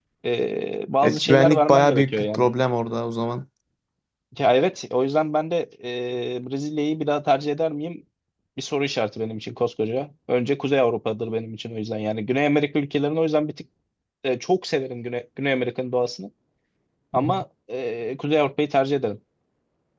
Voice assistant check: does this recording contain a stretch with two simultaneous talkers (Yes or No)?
Yes